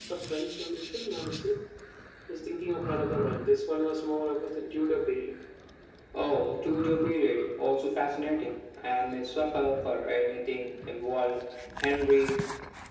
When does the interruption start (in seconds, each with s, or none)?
none